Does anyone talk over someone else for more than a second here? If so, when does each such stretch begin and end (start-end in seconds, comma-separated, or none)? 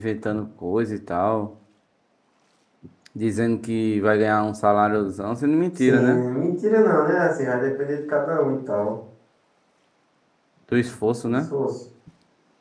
none